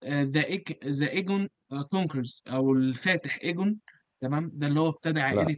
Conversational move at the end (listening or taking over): listening